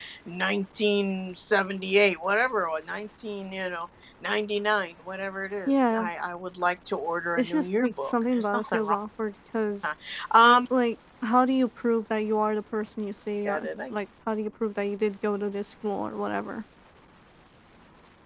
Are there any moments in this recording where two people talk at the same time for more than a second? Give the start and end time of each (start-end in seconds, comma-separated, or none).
7.4-8.9